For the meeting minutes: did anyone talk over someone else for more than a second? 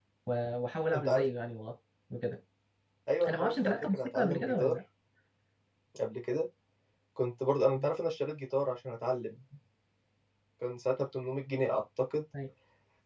Yes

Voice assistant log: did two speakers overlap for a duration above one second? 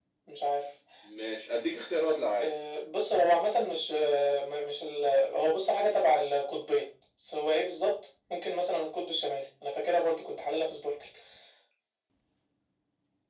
No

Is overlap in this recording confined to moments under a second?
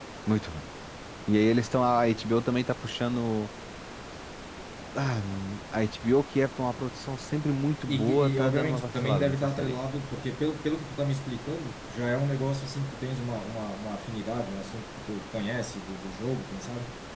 No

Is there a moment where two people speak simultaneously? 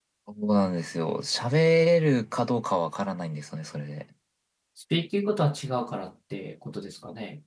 No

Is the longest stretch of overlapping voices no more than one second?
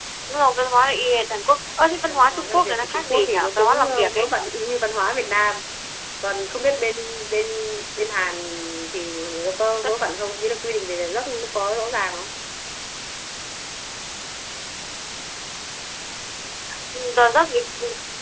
No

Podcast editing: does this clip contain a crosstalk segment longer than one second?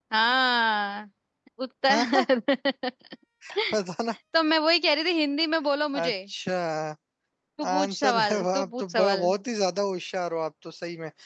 Yes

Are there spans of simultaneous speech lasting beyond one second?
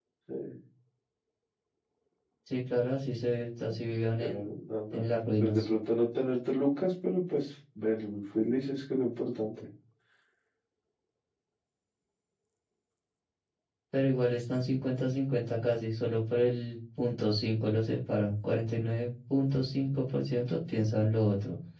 No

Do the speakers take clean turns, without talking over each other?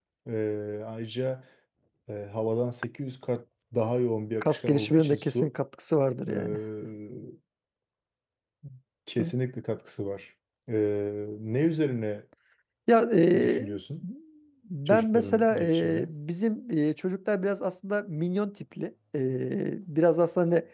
No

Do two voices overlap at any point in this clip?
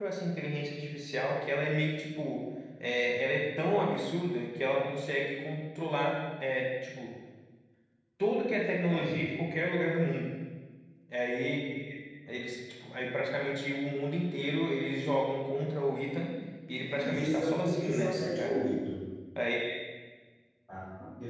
Yes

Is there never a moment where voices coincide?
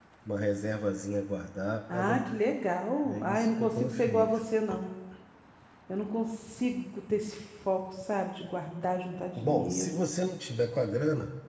No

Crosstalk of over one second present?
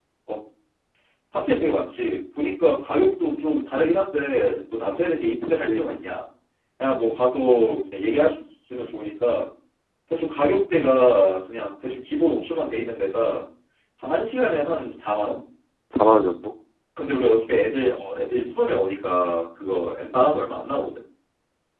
No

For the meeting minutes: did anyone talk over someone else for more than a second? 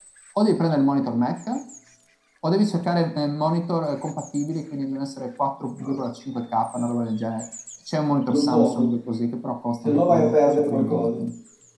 Yes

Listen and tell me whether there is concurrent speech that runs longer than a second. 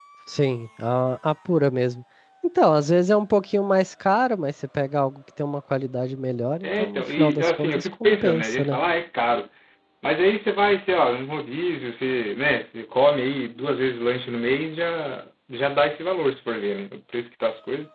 Yes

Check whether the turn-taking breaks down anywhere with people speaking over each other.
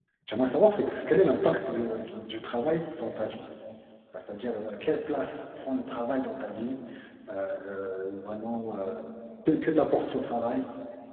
No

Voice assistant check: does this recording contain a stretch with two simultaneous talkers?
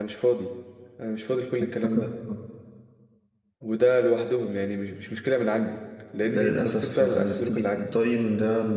Yes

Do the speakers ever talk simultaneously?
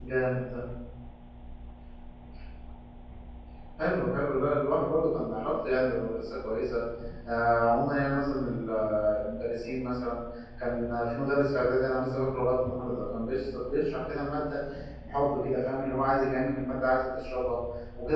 No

